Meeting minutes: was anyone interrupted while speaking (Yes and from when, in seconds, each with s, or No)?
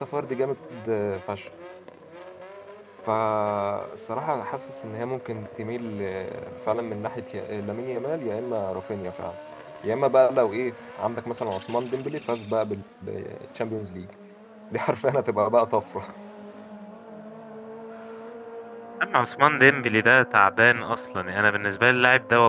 No